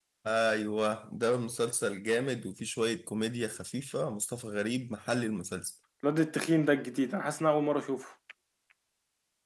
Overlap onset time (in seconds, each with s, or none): none